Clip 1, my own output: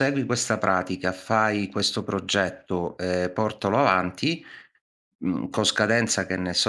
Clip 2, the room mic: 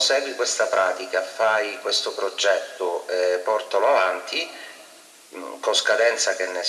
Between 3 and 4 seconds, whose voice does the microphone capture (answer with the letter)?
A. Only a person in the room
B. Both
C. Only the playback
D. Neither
C